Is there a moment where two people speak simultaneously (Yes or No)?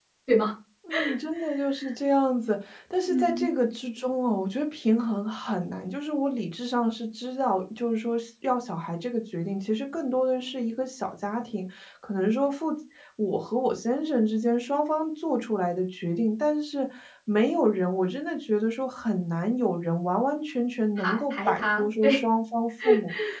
Yes